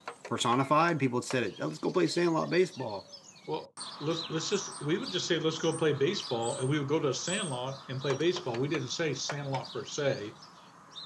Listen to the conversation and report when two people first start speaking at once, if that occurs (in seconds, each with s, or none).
none